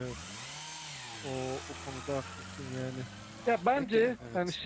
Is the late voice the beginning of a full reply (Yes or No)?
No